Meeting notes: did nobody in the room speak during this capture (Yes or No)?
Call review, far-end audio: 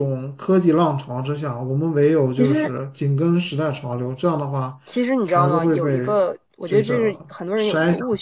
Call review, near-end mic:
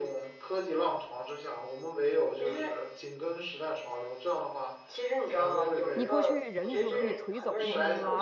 No